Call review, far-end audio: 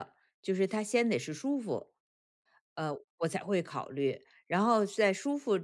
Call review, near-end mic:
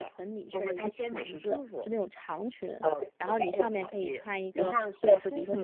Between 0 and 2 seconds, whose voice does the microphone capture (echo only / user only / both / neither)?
both